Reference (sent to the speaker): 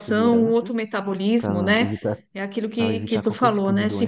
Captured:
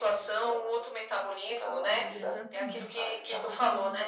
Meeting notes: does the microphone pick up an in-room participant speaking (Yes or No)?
Yes